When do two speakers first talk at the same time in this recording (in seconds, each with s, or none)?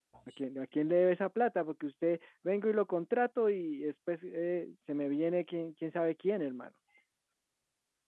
none